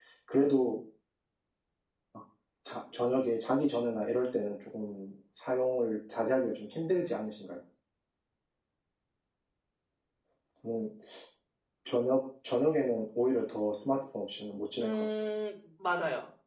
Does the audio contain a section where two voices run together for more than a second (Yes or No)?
No